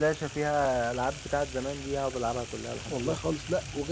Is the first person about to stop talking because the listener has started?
Yes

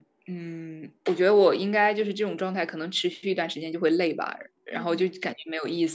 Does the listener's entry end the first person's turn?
No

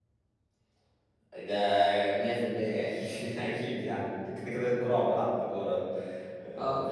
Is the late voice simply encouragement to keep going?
Yes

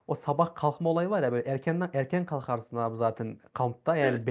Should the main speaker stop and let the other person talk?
No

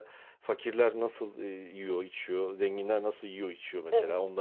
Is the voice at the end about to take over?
No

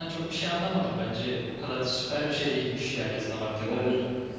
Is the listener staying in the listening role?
No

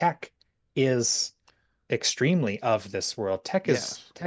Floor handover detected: No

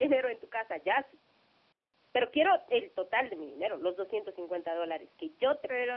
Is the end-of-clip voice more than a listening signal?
Yes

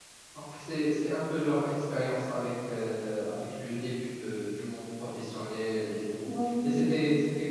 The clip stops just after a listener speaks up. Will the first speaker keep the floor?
Yes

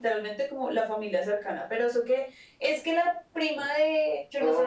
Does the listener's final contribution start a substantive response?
Yes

